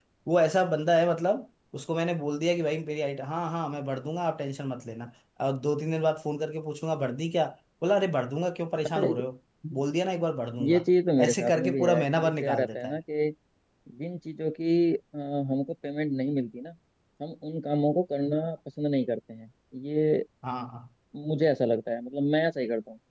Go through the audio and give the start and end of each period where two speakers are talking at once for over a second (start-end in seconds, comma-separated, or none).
11.2-13.0